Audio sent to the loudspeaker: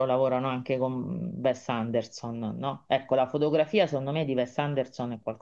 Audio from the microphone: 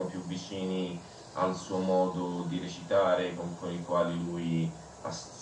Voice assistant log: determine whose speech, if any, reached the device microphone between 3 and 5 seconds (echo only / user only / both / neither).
user only